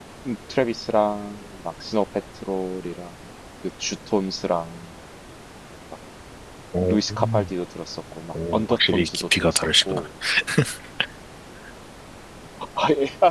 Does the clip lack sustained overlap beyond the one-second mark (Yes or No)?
No